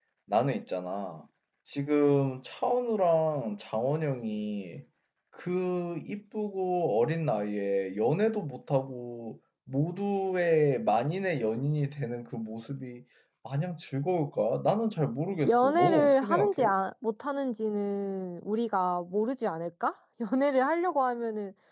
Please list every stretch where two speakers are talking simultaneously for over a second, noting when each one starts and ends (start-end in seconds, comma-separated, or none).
15.5-16.7